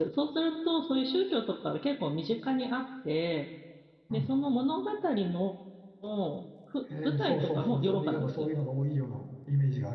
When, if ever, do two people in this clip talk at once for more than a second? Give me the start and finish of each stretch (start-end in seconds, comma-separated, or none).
7.0-8.5